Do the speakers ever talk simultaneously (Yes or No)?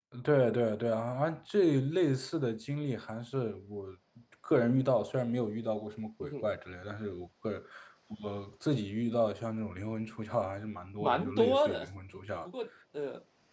Yes